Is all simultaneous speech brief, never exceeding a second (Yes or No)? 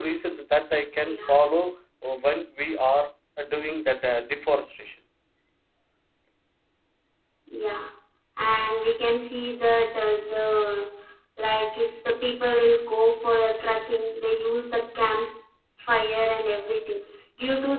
Yes